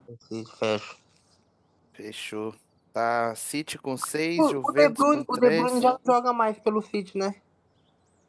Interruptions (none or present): present